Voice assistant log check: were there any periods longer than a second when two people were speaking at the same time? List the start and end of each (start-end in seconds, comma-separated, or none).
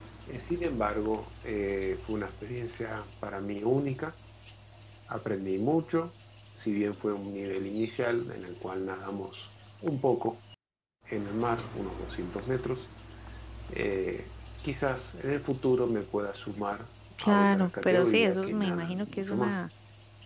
17.2-19.6